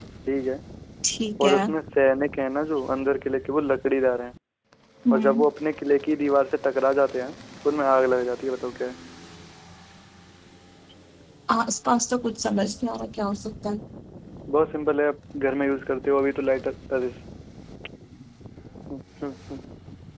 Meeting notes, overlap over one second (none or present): none